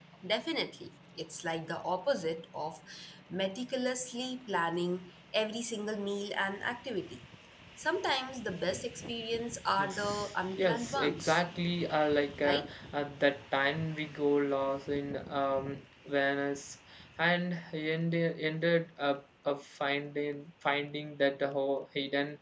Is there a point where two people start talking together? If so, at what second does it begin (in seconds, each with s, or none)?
9.8 s